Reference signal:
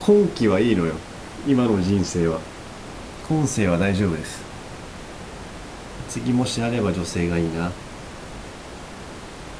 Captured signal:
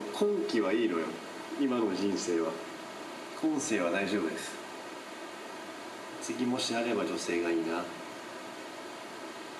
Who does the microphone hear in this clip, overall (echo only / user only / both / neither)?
echo only